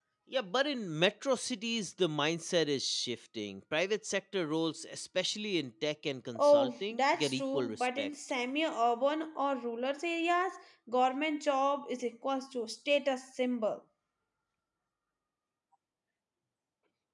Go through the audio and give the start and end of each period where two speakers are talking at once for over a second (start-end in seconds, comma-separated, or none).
6.3-8.1